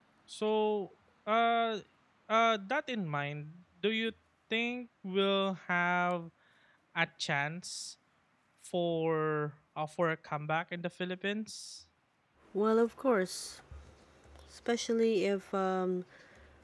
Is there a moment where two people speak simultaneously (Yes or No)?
No